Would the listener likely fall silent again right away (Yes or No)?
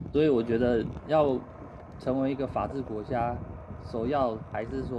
Yes